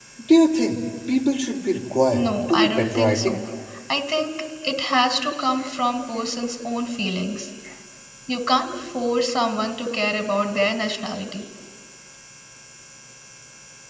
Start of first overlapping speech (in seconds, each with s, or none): 2.1 s